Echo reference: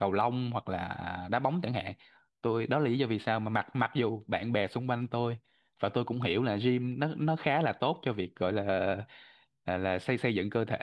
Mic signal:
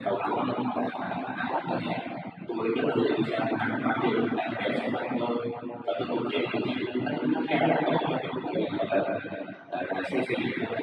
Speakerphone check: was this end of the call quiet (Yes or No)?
Yes